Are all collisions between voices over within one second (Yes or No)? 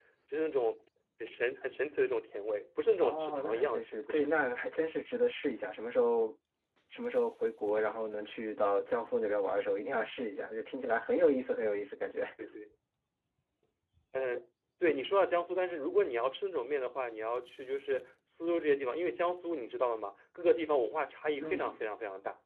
No